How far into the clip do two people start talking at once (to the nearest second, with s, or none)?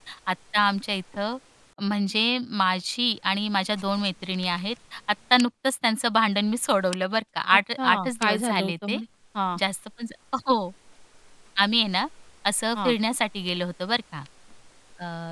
8 s